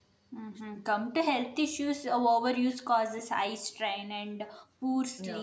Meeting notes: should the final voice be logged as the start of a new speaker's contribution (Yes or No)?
No